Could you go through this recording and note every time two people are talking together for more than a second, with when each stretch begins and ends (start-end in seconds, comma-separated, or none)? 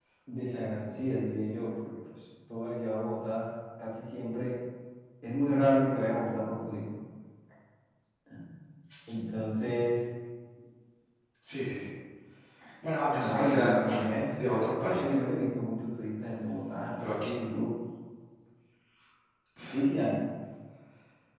13.2-15.2